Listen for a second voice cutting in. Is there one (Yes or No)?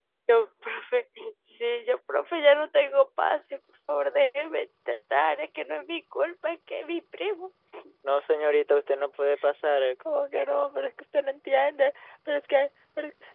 No